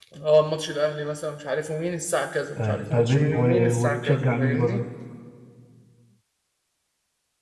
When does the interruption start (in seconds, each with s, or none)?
2.6 s